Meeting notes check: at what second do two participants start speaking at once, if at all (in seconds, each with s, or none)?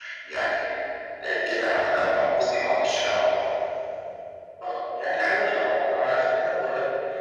none